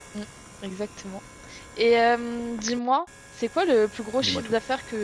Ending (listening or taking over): listening